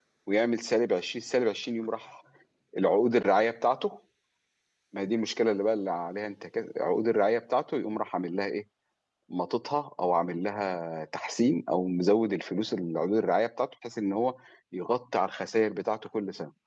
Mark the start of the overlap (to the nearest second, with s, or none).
none